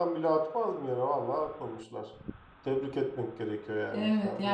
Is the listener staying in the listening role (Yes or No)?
No